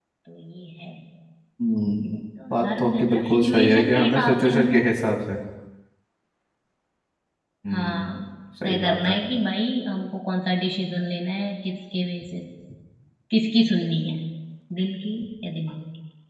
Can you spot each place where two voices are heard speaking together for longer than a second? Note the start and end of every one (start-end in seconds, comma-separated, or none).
2.5-4.8